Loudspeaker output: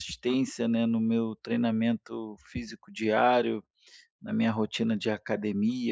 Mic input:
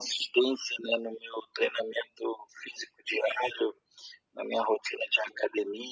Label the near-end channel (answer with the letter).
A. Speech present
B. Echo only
B